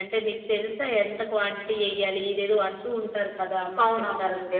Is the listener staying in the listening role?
No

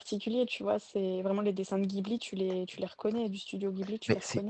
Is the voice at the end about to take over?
Yes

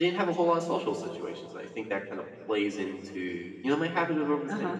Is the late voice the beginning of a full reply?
Yes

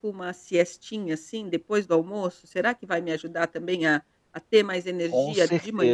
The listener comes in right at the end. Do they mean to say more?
Yes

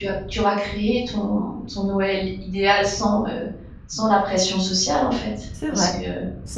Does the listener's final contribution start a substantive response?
Yes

